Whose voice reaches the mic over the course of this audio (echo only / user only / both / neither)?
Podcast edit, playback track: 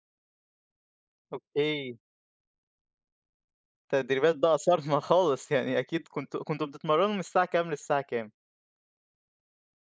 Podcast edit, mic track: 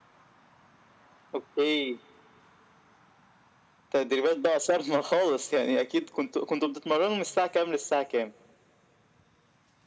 echo only